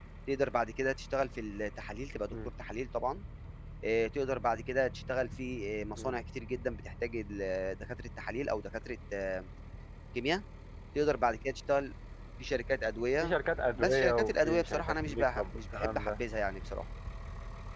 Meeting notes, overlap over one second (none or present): present